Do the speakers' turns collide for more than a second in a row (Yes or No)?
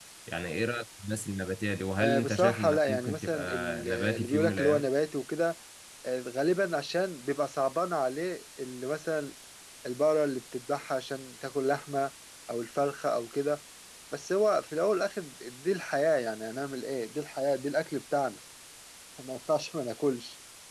Yes